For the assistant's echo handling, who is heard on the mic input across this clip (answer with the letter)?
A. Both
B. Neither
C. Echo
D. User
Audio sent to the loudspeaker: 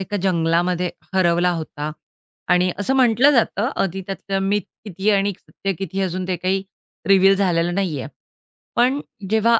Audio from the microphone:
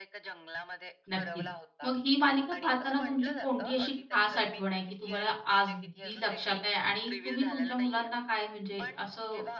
A